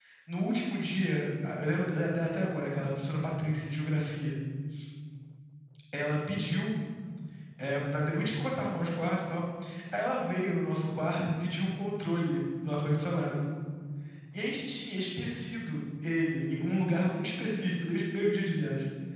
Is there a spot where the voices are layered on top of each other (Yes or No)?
No